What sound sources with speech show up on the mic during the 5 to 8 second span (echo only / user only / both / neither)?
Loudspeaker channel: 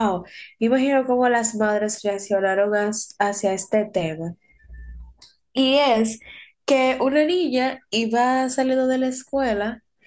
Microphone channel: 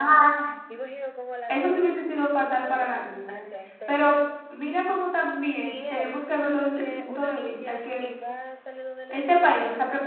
both